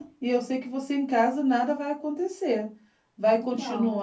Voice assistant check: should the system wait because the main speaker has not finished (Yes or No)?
Yes